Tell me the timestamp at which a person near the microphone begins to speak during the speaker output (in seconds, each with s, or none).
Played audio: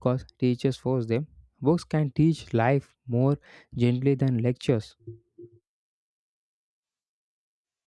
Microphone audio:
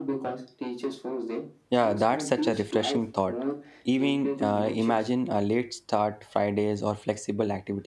1.7 s